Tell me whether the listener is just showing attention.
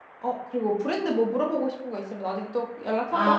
No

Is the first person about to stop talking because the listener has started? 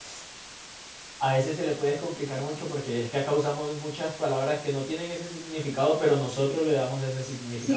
Yes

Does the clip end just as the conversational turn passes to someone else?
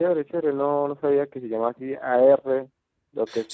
Yes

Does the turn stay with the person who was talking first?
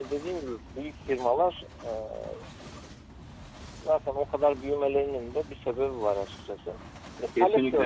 Yes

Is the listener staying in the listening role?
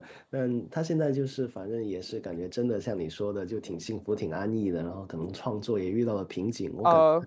No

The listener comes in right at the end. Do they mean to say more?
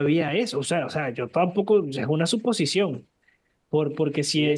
No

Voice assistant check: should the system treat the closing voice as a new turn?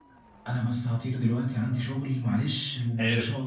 No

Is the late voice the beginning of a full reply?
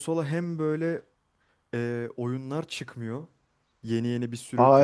Yes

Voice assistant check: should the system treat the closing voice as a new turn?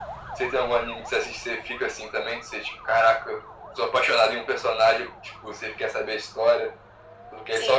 Yes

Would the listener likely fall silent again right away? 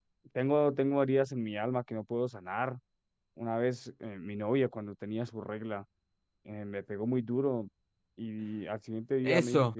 No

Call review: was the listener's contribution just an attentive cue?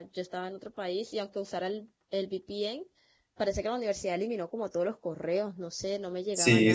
No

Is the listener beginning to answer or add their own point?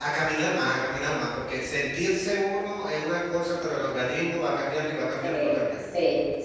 Yes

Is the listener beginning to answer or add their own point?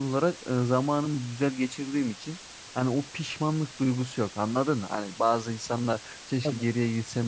No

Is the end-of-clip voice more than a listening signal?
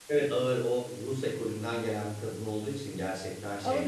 Yes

